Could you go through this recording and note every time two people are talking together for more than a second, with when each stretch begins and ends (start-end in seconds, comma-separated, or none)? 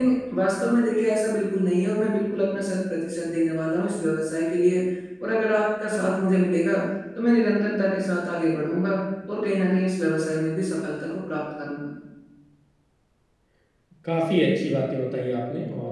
none